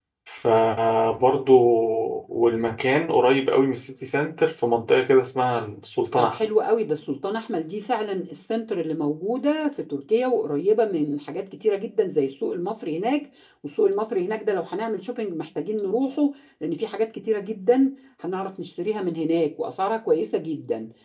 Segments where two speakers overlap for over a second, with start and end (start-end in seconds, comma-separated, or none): none